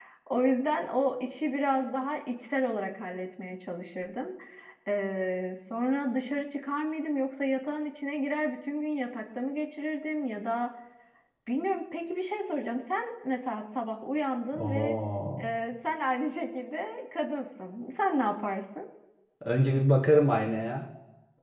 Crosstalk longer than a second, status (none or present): none